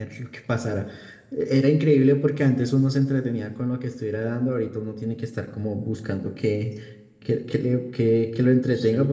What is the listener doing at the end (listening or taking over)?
taking over